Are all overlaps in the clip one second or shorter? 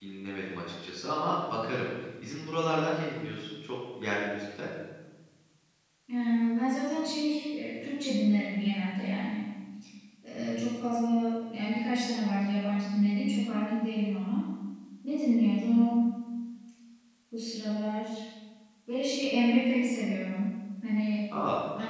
Yes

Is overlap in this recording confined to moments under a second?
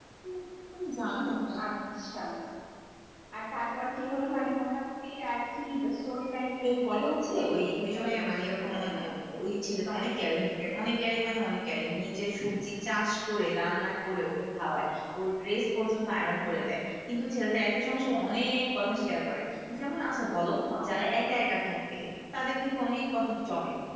No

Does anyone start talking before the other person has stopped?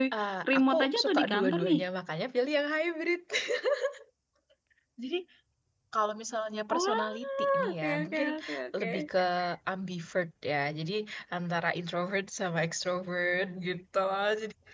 Yes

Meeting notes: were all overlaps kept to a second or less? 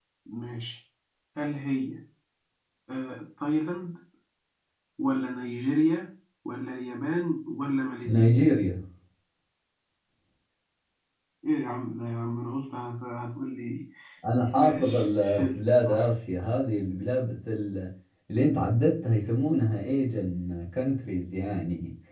No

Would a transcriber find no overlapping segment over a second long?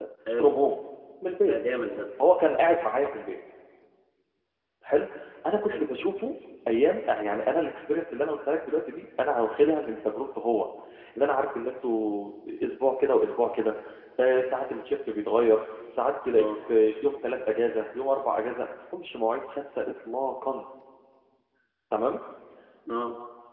Yes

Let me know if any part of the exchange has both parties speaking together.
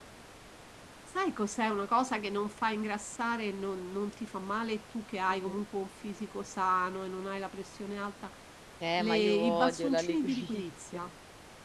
Yes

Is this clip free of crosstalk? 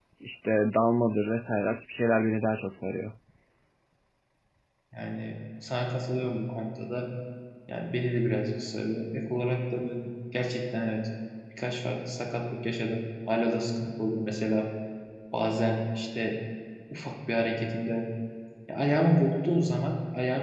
Yes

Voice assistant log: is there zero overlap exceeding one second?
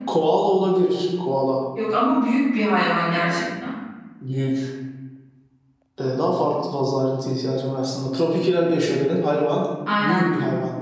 Yes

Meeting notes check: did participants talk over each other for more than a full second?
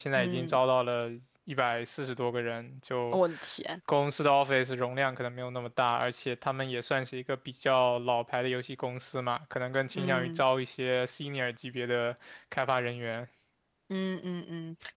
No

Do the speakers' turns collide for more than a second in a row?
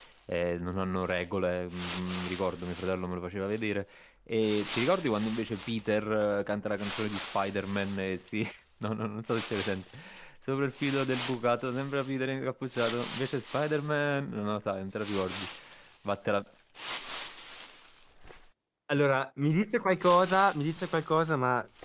No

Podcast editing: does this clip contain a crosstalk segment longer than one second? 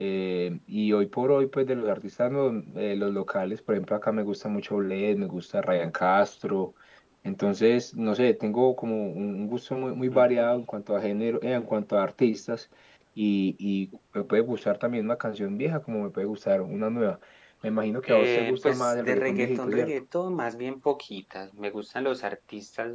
Yes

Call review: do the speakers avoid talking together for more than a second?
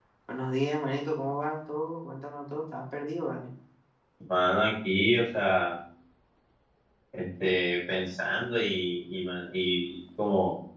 Yes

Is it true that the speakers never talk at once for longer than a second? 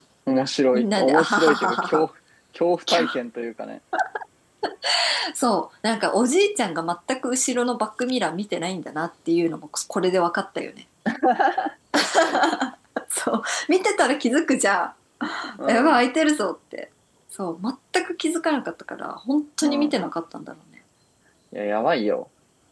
No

